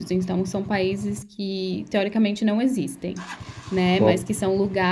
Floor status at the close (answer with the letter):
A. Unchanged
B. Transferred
A